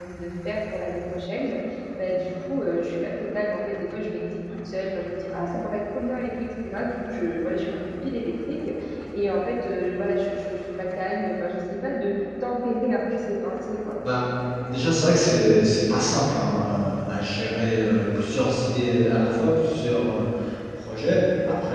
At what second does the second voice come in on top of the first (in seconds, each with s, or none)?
none